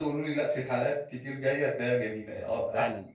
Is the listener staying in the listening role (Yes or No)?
No